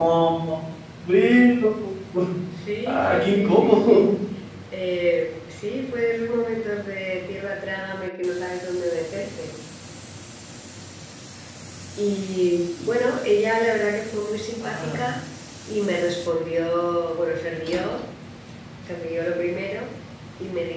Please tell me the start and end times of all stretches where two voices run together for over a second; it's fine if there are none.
2.9-4.1

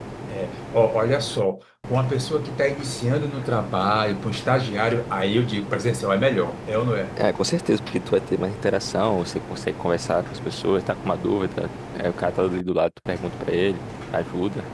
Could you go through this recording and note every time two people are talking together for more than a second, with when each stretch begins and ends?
none

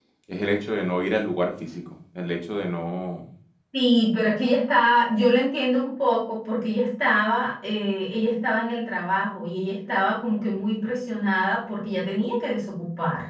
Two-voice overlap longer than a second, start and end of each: none

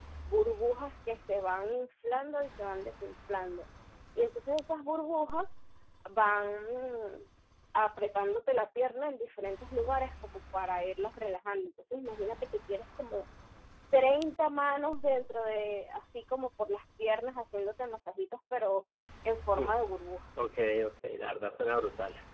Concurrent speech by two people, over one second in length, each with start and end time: none

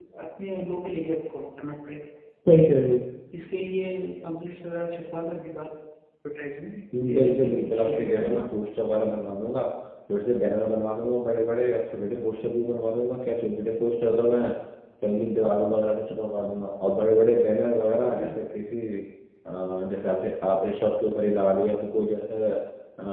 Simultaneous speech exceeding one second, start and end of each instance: 7.0-8.4

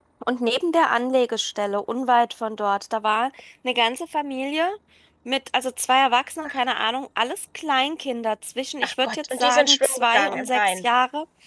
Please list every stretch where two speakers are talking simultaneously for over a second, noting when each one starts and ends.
8.8-10.8

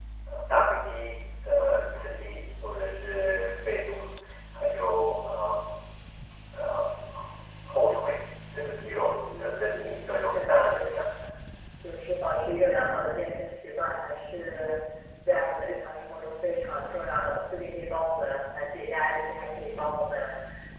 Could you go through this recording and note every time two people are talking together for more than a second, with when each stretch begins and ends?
9.4-10.9

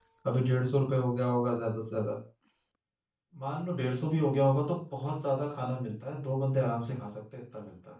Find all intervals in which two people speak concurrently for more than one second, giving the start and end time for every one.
none

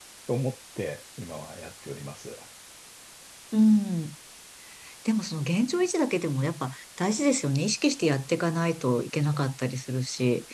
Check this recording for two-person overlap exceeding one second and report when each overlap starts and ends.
none

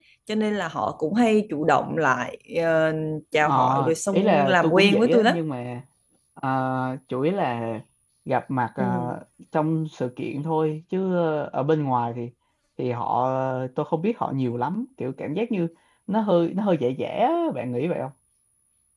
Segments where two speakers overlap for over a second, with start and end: 4.1-5.3

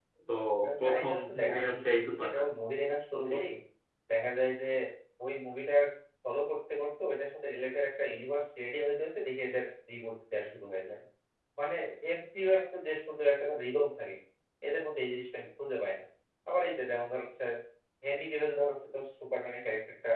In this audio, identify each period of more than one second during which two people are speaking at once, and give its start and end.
0.8-2.5

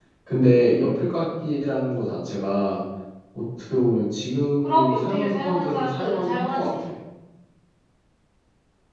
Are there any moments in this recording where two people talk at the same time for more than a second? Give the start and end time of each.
4.6-6.9

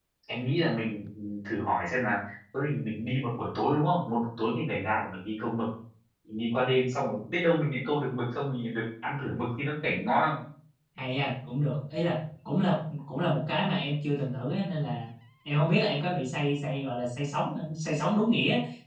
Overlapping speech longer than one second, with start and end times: none

